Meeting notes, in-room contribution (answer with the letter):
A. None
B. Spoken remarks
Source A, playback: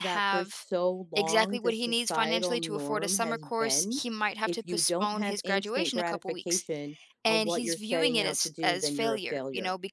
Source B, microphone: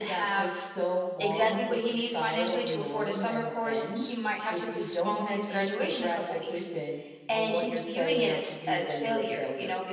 A